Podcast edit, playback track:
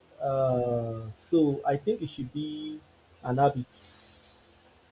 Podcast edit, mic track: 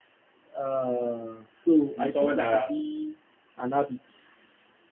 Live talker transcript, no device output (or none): You know, someone that